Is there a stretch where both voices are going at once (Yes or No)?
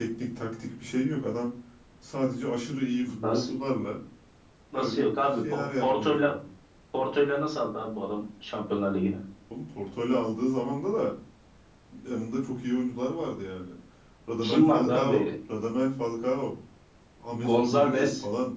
Yes